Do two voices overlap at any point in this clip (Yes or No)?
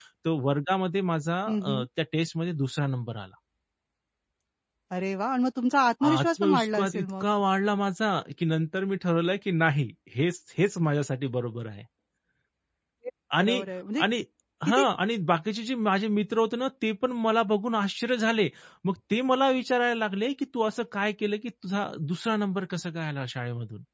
Yes